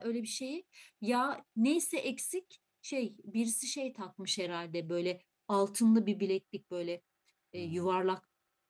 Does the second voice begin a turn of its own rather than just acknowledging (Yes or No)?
No